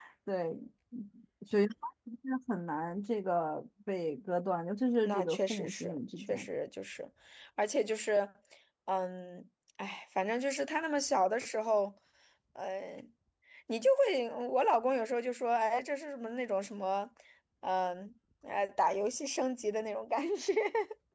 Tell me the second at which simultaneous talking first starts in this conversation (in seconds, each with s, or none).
5.0 s